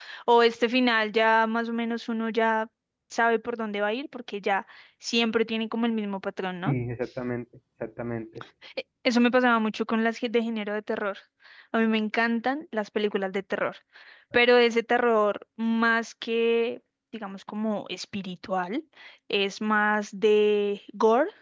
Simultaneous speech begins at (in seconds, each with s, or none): none